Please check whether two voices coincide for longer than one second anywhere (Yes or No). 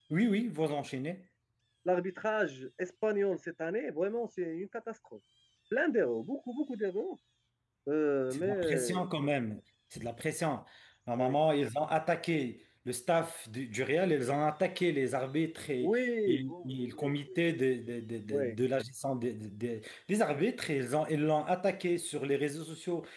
Yes